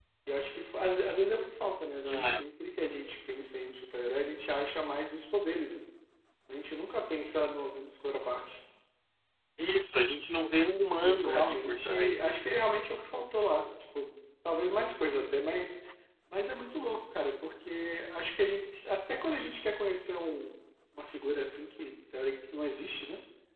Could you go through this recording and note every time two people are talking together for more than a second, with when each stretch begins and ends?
10.8-12.4

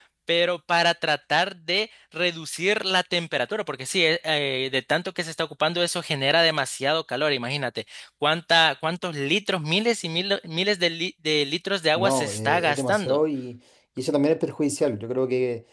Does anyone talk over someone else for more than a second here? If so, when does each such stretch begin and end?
12.0-13.2

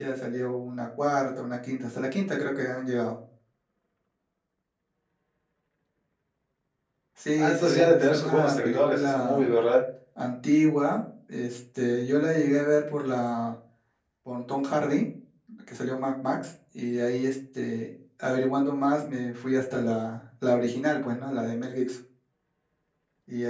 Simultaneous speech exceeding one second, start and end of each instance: 7.4-9.4

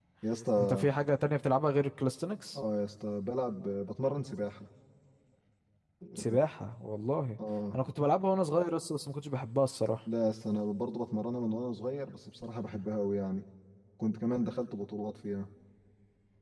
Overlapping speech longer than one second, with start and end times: none

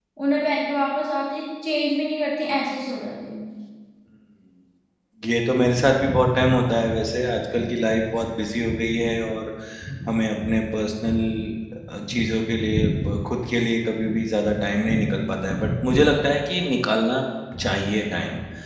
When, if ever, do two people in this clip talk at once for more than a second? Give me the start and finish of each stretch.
none

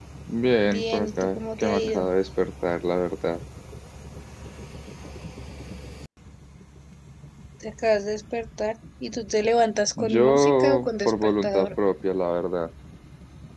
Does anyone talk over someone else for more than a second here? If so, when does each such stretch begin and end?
0.7-2.1, 10.0-11.7

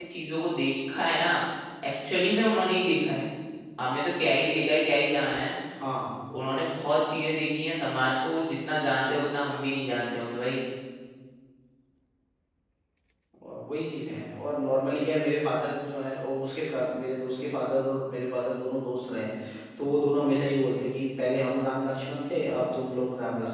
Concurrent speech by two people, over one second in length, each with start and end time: none

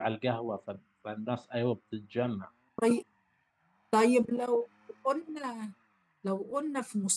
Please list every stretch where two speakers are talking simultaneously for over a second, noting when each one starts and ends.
none

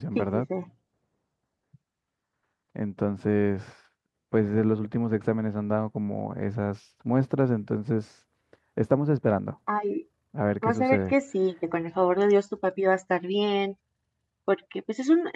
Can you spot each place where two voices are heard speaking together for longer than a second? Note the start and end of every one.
none

